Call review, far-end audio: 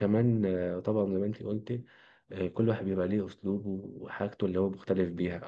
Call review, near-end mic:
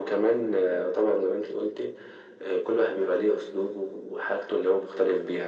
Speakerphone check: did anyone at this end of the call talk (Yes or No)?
No